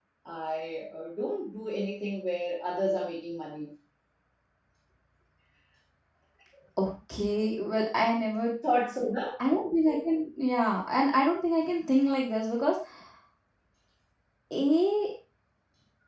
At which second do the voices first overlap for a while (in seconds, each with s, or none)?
none